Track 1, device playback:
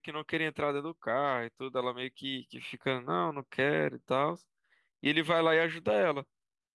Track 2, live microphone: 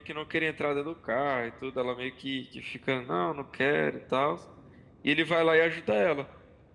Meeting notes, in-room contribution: none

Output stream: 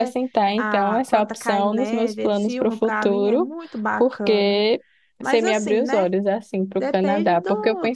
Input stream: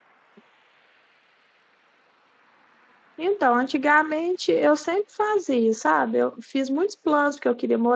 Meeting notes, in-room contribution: present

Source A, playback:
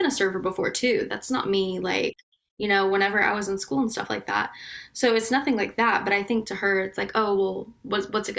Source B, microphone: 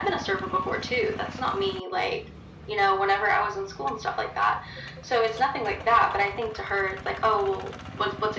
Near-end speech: none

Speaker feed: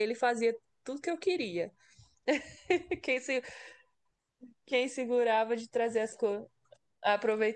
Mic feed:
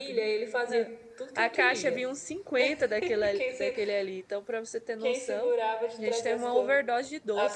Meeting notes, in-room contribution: present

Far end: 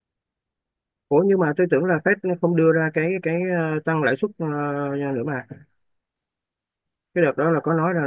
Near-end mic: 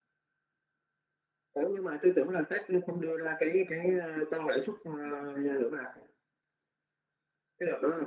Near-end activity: none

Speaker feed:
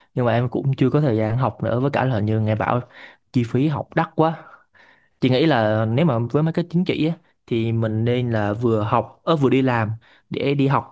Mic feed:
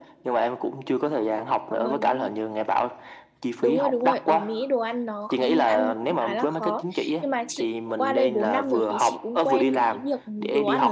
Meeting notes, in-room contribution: present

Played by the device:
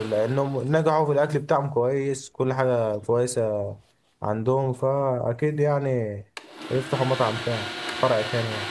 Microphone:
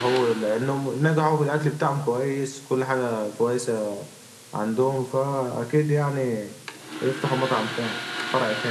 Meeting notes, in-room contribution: none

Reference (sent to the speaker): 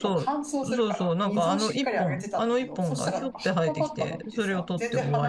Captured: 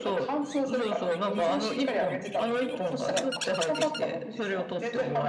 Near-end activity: none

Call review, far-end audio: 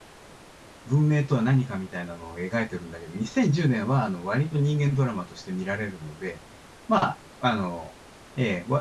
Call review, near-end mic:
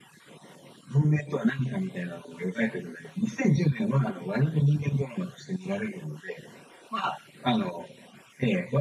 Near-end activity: none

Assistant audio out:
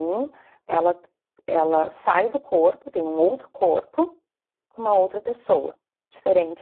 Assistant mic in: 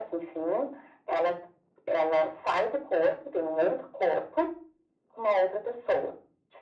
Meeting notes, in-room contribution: none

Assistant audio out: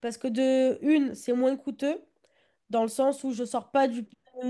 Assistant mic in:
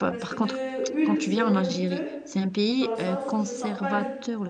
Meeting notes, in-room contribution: present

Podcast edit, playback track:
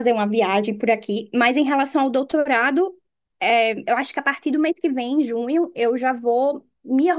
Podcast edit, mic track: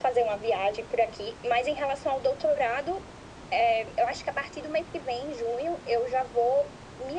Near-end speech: none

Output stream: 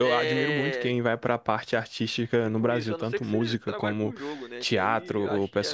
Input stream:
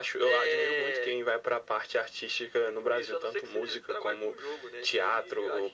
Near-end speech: none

